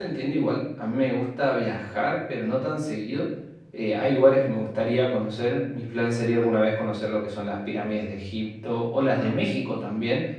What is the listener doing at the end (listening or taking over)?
listening